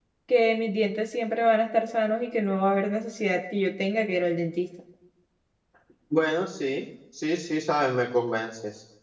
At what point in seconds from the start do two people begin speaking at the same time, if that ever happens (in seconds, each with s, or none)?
none